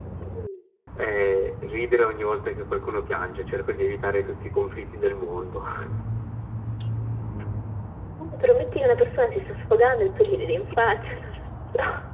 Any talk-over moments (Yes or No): No